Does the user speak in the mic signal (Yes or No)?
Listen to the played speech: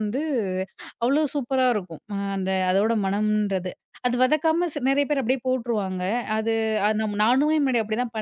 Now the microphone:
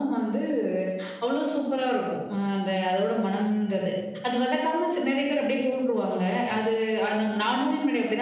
No